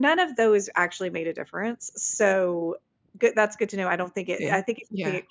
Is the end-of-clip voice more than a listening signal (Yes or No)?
No